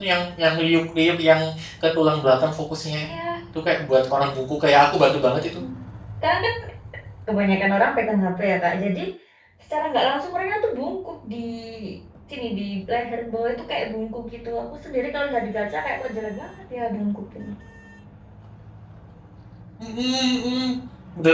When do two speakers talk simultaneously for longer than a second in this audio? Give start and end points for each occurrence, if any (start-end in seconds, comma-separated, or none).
none